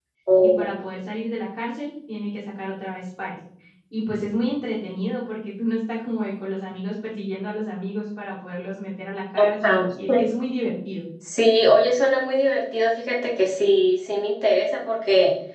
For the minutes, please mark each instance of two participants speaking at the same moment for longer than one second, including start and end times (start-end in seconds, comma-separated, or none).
none